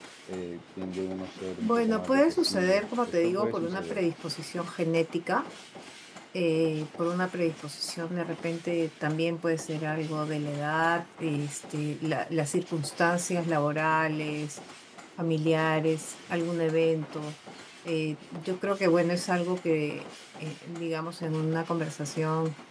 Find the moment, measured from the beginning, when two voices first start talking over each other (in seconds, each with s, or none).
1.6 s